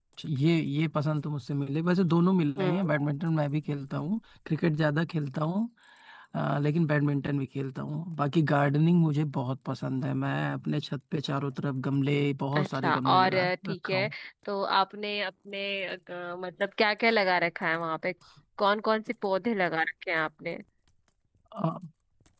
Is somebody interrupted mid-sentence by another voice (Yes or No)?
Yes